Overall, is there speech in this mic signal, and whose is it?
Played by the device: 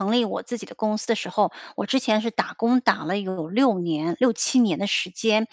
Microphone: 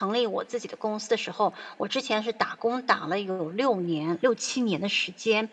echo only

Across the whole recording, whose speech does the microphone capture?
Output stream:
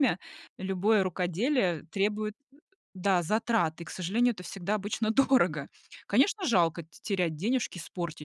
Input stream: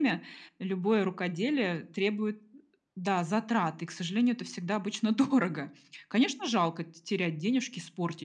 echo only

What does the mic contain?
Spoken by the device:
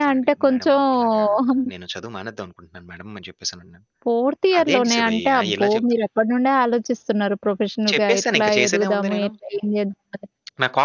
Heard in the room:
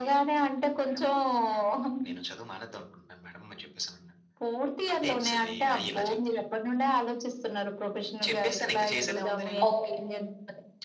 both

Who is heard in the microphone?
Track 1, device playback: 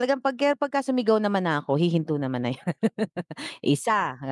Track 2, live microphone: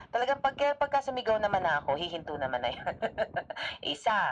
echo only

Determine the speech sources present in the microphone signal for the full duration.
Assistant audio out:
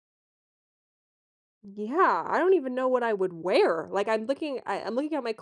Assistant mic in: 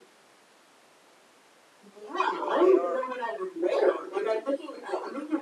both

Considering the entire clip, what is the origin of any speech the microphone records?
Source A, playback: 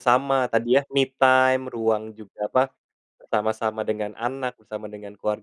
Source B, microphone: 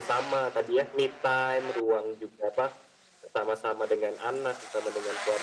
echo only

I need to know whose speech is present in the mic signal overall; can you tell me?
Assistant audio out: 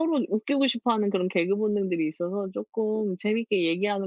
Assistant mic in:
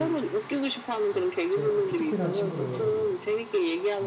both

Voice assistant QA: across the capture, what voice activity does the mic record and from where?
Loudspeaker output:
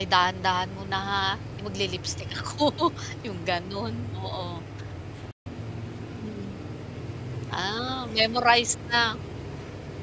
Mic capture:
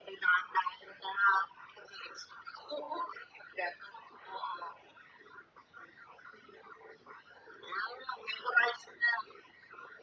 echo only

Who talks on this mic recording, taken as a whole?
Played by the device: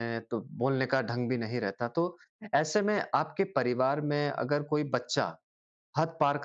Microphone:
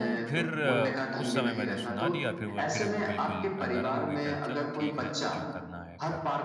both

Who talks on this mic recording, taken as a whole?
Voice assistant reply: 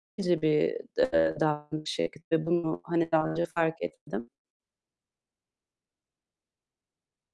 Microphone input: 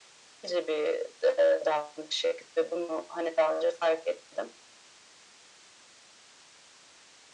echo only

